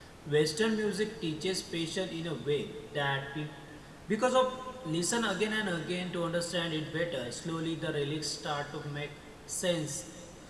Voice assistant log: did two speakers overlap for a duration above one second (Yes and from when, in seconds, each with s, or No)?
No